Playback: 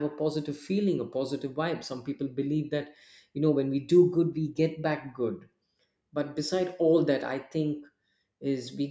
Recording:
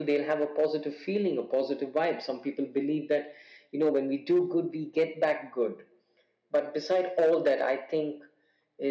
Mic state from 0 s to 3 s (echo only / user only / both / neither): echo only